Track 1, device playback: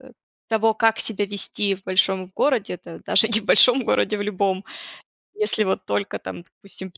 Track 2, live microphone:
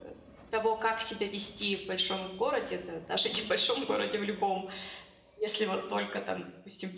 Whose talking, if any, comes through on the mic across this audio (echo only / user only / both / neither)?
echo only